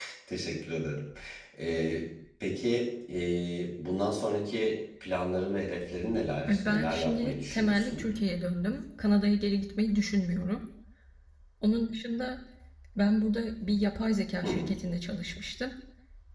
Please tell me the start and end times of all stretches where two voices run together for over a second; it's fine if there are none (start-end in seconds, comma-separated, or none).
6.5-8.1